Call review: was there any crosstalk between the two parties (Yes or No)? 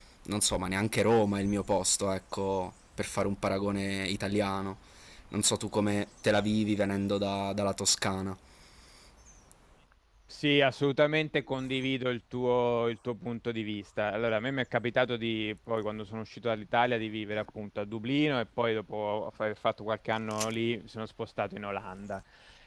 No